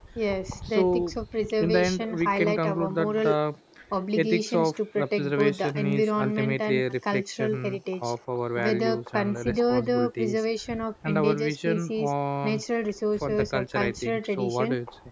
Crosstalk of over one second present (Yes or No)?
Yes